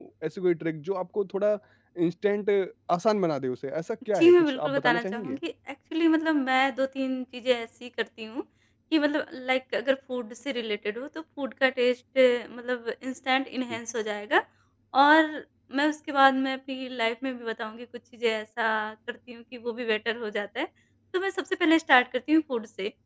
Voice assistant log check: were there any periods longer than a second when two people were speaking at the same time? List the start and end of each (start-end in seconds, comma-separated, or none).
4.2-5.4